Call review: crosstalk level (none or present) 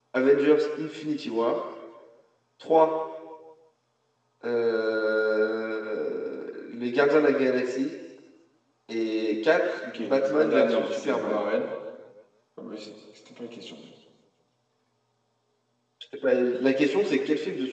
present